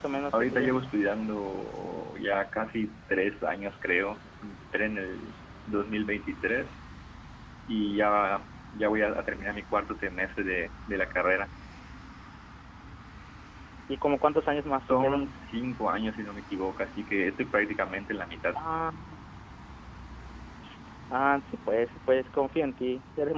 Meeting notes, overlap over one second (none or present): none